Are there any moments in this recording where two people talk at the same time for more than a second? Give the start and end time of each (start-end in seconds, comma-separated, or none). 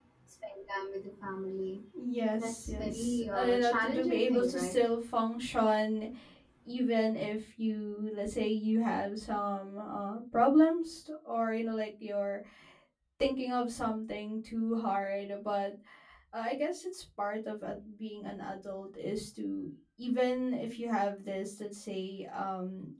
2.4-4.8